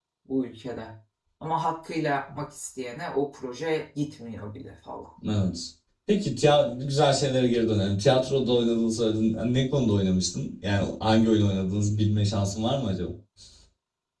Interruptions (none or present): none